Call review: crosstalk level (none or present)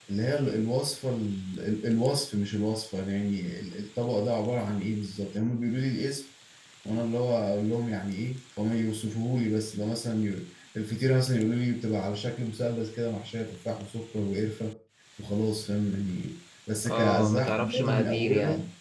present